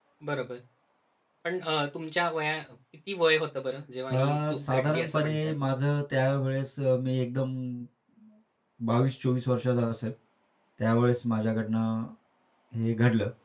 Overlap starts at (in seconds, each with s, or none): 4.1 s